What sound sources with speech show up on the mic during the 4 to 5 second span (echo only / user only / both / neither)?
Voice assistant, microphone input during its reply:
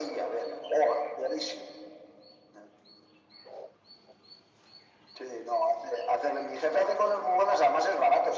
neither